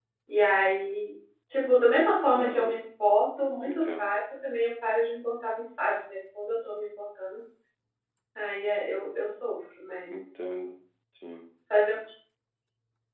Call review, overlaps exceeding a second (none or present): none